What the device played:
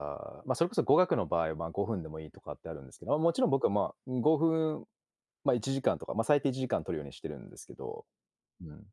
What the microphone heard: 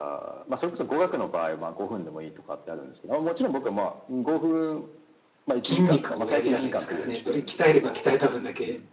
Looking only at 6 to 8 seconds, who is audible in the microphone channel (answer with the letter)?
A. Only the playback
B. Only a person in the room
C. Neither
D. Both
D